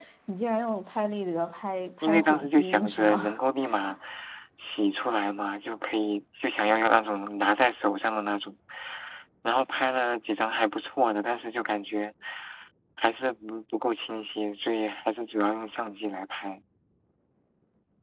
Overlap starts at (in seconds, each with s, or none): 2.0 s